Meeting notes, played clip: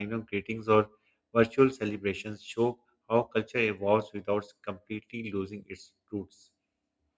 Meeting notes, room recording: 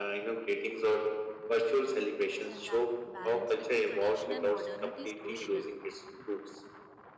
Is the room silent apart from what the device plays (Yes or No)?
No